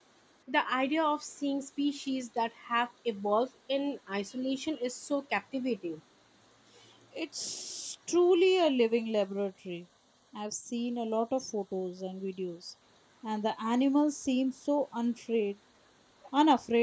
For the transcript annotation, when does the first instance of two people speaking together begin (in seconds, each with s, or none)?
none